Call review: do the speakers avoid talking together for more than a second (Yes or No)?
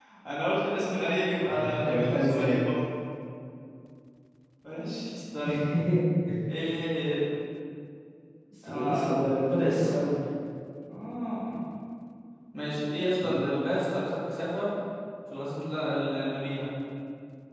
No